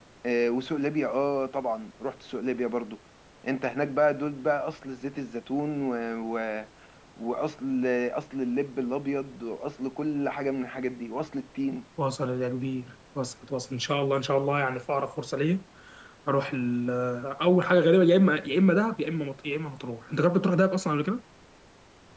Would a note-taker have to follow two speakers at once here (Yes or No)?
No